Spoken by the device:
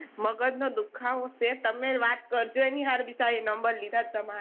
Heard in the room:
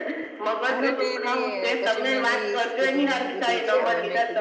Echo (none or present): present